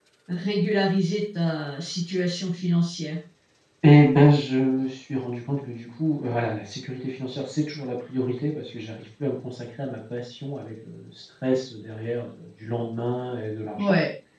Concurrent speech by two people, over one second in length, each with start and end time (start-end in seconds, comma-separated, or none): none